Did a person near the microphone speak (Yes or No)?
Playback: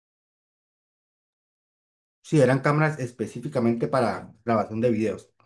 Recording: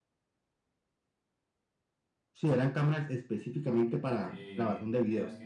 Yes